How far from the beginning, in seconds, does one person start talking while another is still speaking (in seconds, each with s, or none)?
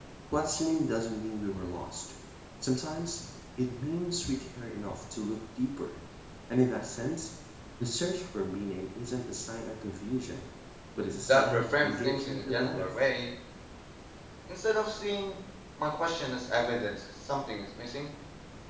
11.3 s